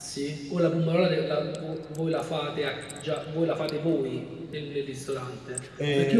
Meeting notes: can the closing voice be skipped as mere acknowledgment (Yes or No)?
Yes